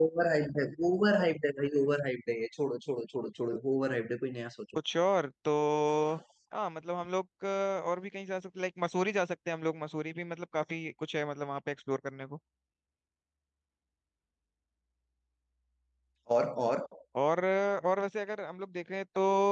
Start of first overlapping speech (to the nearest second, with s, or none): none